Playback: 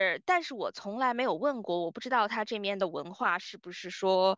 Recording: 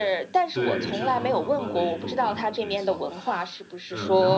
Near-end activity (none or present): present